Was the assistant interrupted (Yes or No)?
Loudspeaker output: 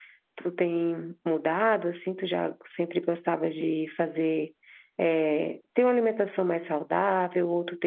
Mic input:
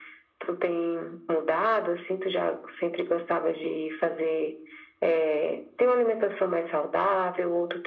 No